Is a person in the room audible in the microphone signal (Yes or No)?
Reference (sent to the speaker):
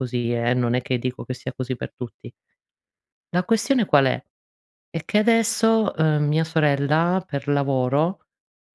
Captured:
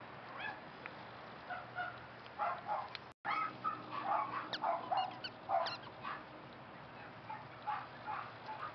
No